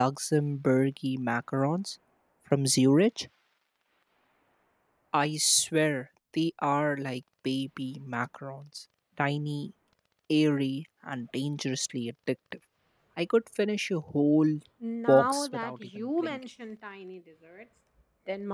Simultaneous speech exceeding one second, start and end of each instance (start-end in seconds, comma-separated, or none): 15.1-16.4